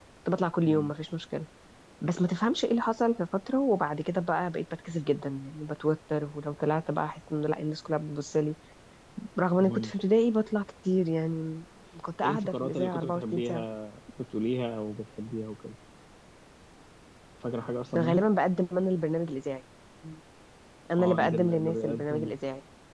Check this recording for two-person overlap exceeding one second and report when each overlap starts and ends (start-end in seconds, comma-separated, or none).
12.2-13.6, 21.0-22.3